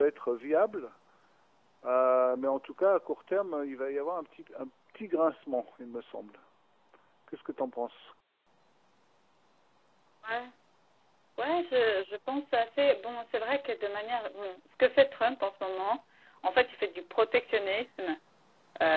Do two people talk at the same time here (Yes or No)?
No